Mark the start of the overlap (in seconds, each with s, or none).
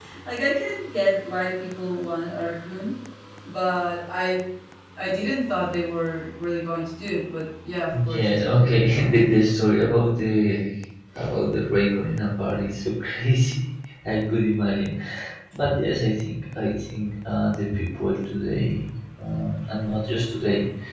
7.9 s